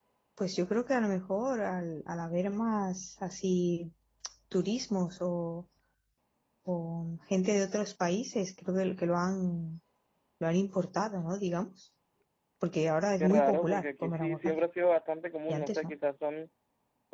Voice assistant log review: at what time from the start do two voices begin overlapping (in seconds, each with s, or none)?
13.2 s